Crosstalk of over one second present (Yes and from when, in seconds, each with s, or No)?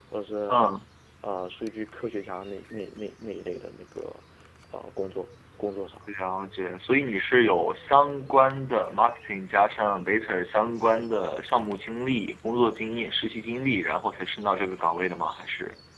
No